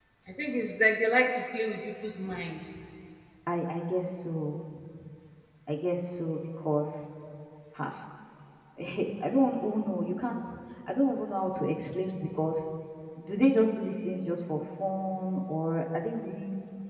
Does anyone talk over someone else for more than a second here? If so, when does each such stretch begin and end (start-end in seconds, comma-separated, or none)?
none